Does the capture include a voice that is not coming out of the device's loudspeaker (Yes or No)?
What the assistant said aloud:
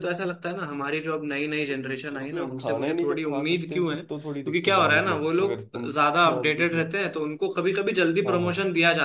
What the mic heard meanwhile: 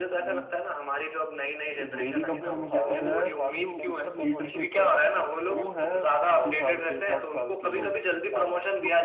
Yes